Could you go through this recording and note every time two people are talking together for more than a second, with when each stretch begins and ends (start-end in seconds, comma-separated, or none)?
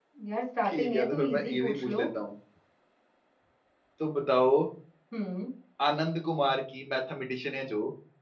0.7-2.0